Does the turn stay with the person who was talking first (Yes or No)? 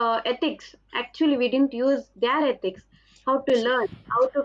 Yes